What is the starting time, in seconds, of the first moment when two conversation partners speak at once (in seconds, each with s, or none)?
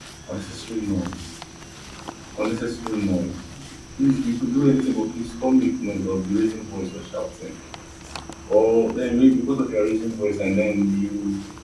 none